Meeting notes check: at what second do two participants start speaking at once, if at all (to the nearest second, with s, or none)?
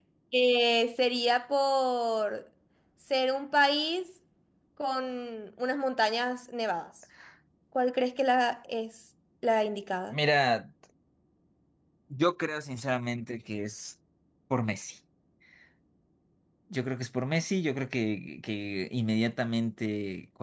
none